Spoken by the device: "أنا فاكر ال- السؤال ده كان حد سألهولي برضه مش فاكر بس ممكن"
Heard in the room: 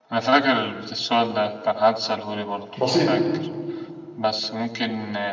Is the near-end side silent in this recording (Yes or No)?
No